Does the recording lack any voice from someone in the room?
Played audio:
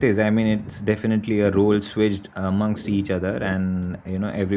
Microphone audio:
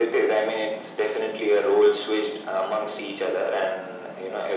Yes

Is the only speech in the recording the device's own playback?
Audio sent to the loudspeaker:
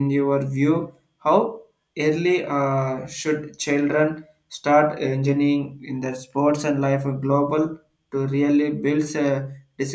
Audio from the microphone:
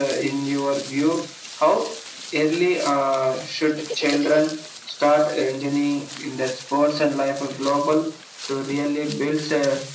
Yes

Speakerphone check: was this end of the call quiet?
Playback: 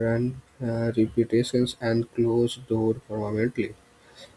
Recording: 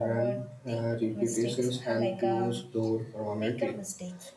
No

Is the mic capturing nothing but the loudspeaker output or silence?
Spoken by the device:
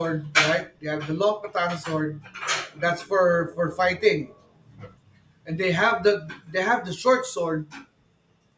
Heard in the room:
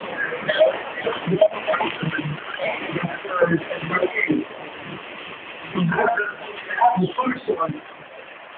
Yes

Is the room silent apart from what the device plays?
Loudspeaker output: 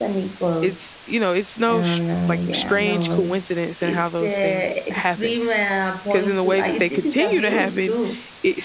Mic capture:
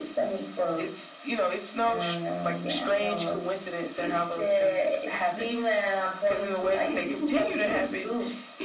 Yes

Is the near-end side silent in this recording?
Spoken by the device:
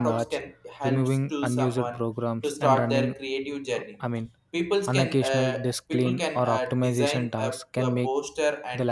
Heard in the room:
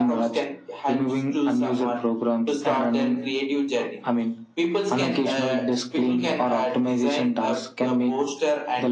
Yes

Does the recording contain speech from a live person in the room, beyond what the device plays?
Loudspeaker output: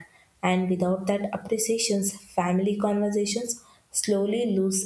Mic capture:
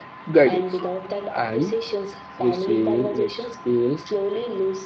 Yes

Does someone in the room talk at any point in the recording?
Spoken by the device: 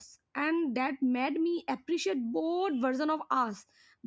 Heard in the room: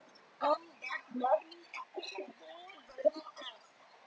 No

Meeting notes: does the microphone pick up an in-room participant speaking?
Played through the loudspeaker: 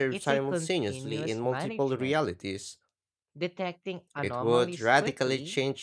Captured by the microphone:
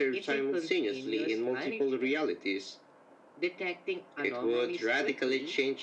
No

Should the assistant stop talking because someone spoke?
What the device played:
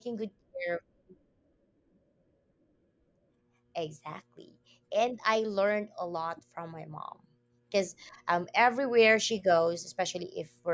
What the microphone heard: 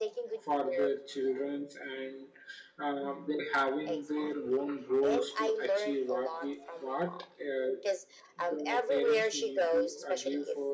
Yes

